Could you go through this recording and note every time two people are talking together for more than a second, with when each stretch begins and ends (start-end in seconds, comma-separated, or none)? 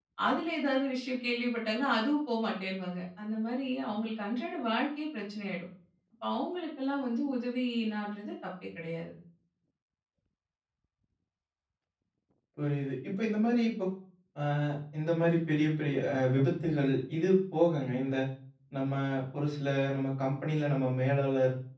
none